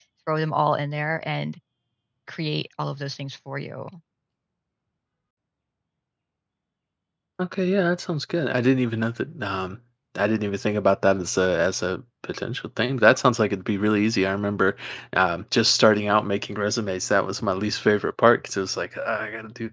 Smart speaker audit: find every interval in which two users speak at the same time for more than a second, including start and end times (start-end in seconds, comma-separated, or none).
none